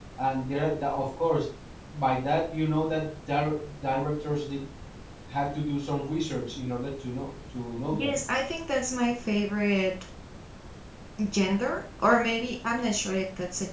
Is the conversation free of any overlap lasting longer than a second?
Yes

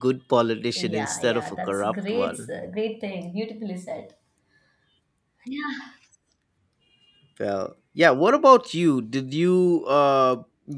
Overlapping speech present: Yes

